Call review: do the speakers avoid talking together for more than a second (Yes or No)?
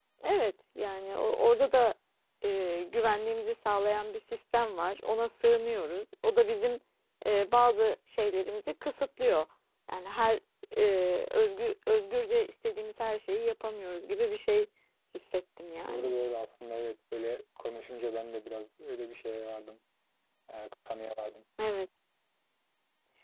Yes